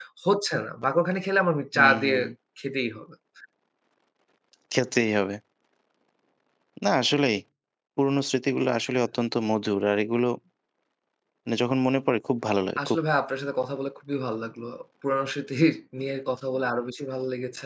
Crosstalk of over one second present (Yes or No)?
No